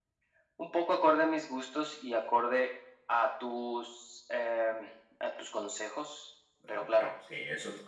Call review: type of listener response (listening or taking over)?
taking over